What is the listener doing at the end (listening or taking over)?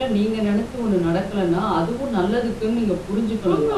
taking over